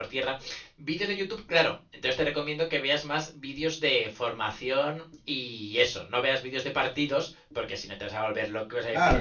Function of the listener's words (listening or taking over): taking over